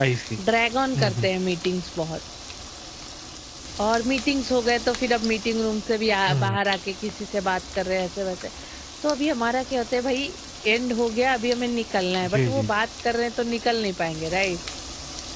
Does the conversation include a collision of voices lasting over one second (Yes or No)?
No